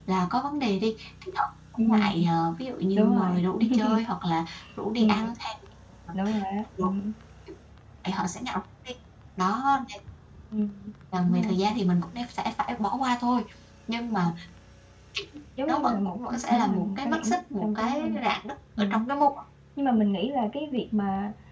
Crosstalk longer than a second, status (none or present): present